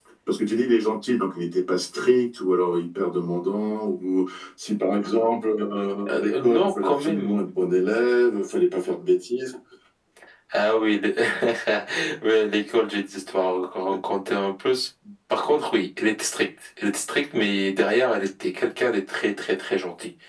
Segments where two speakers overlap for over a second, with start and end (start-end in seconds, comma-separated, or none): 6.1-7.5